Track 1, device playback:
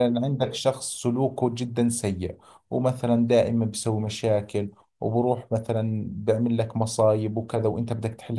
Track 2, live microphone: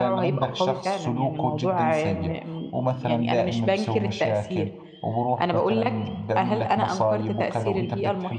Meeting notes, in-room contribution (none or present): present